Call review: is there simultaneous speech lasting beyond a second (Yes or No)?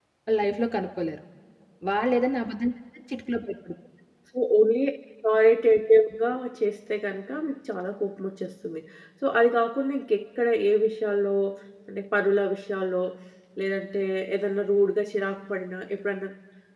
No